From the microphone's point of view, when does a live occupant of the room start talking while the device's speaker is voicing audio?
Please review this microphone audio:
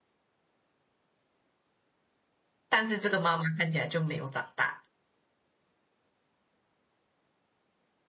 2.7 s

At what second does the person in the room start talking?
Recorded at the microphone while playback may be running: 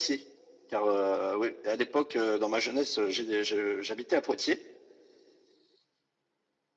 none

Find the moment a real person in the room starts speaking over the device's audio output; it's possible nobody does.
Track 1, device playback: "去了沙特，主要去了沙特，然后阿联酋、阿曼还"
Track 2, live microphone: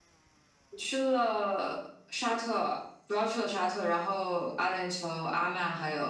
none

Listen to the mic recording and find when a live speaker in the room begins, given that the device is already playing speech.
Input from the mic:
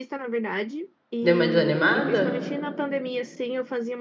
1.2 s

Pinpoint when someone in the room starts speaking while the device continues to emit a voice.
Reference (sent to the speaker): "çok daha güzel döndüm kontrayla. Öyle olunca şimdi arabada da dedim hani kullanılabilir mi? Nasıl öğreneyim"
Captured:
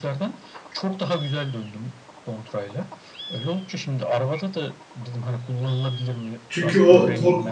6.5 s

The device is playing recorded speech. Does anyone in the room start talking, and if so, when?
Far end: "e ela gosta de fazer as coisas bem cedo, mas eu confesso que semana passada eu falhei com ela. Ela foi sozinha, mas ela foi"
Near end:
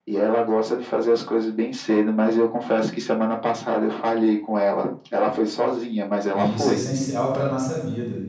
6.2 s

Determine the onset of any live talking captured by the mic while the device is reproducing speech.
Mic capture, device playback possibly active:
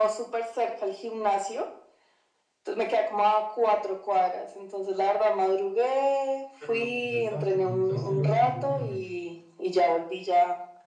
6.6 s

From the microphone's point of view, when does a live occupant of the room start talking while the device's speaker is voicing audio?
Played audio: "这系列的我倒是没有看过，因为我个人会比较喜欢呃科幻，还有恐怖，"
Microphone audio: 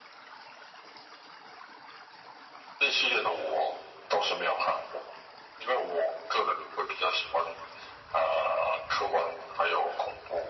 none

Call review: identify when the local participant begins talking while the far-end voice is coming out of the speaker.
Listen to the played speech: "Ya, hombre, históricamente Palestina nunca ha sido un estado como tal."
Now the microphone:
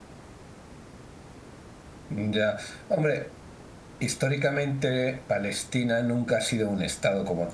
none

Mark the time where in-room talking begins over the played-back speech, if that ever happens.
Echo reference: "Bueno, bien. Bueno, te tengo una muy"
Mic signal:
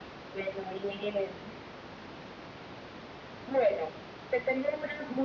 none

